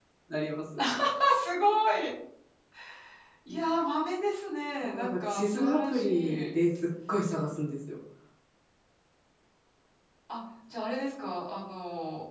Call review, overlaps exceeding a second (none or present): present